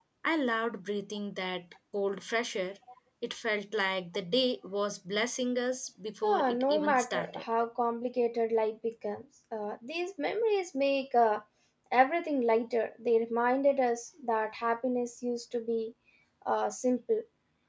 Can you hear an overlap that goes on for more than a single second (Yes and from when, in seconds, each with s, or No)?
Yes, from 6.2 s